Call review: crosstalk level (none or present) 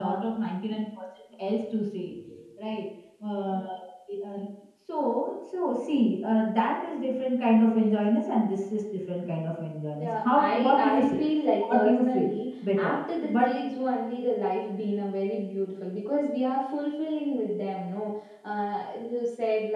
present